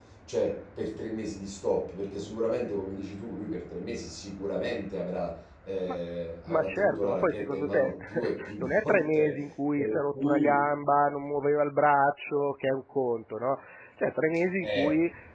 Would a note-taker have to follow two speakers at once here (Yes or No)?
Yes